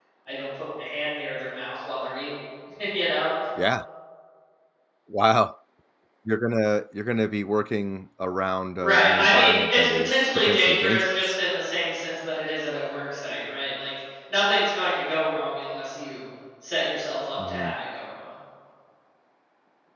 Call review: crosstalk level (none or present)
present